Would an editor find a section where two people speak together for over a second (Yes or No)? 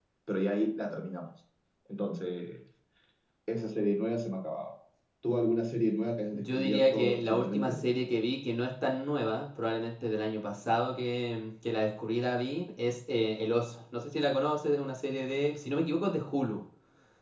Yes